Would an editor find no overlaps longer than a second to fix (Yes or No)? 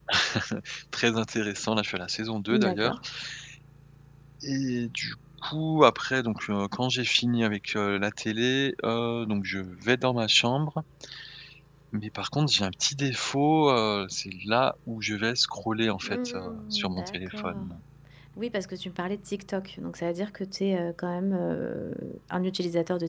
No